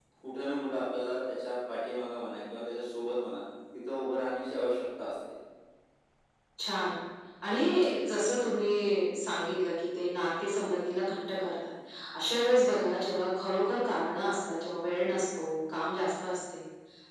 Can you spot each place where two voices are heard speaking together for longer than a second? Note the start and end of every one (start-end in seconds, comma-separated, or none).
none